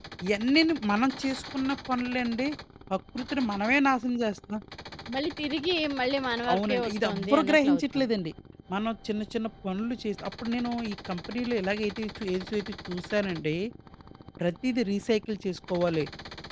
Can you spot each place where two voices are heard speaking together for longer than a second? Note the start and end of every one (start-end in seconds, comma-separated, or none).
6.5-8.1